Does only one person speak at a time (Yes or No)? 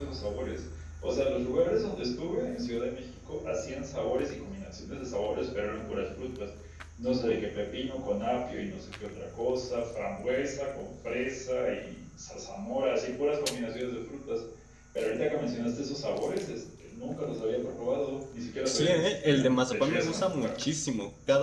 No